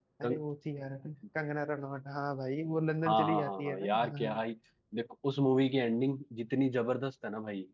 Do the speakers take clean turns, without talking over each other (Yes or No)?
No